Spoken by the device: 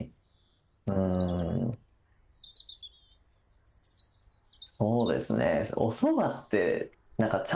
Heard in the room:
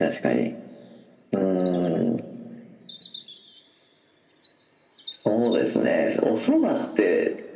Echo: present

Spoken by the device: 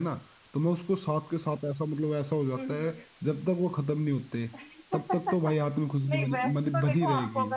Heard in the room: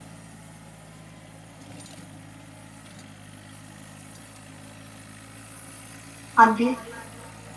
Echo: none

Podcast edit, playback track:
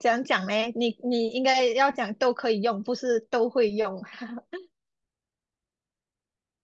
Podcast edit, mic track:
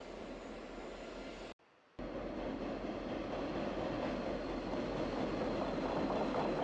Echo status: none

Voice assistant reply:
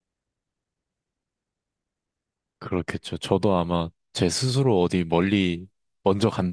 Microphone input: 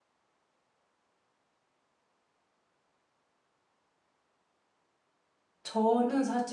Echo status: none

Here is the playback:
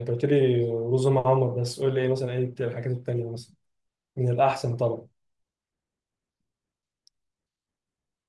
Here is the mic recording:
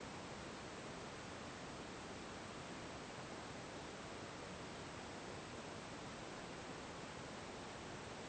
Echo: none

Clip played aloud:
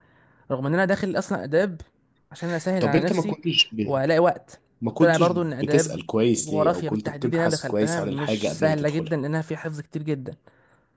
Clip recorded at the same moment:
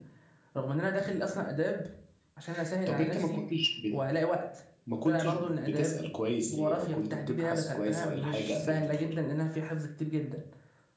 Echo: present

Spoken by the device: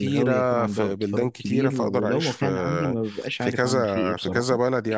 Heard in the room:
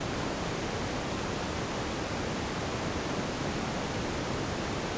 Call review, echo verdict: none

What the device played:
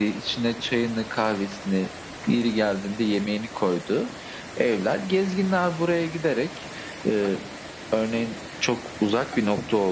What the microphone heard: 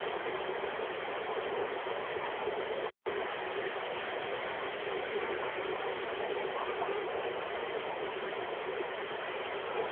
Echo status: none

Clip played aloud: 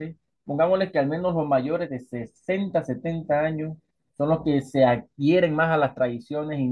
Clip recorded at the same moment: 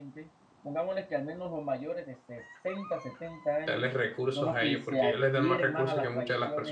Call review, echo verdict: present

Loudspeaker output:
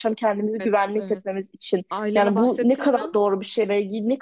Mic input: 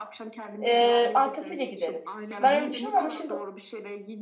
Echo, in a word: present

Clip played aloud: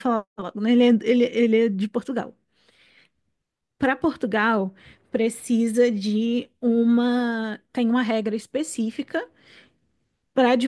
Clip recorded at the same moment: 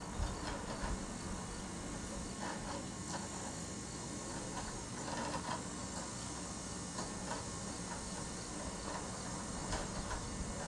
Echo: none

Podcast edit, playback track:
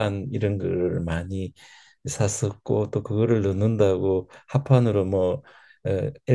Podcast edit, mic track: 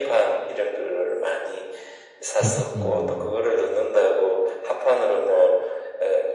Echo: present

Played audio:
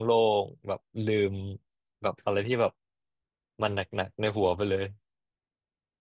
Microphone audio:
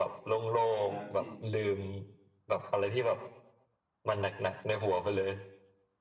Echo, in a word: present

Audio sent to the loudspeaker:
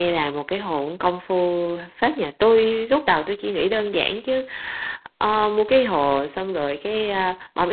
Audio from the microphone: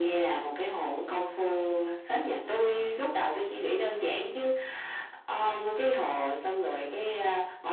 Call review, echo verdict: present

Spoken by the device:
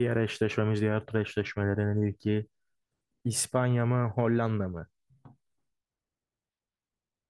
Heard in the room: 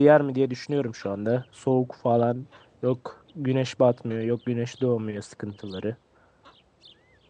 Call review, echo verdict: none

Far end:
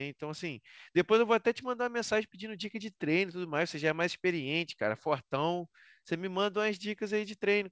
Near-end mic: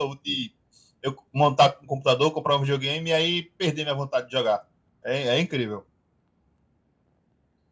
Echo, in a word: none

